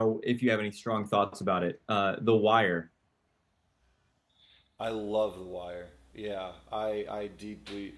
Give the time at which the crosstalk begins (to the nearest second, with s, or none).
none